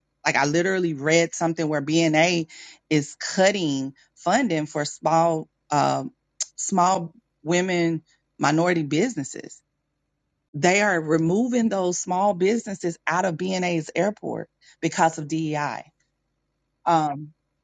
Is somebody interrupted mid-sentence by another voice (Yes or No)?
No